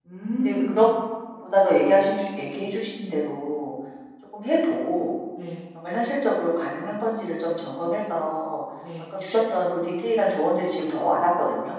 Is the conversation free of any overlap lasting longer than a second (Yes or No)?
Yes